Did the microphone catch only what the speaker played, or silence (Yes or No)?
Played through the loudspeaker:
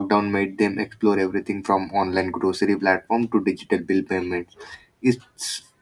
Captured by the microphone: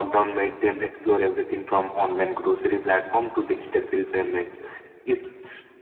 Yes